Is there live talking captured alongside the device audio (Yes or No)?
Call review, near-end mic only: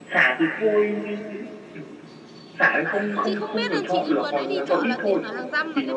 Yes